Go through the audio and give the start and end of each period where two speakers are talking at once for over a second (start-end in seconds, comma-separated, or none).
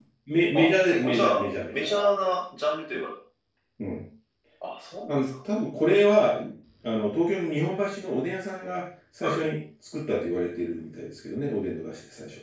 0.6-1.9